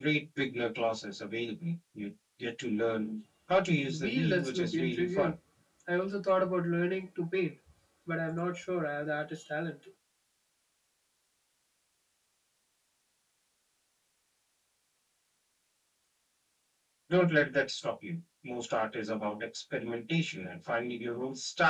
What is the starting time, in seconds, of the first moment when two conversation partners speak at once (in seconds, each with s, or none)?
3.9 s